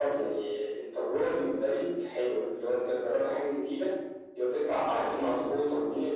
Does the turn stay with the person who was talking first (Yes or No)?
Yes